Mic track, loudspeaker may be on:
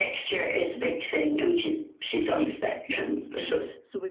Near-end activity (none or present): present